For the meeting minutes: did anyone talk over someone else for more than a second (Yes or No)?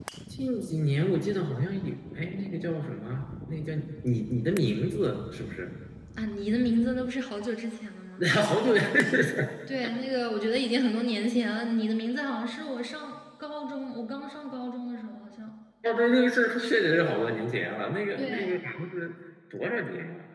No